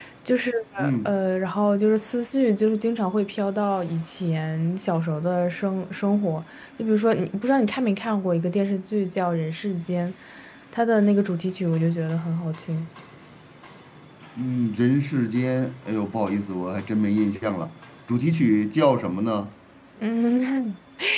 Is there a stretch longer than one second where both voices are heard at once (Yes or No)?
No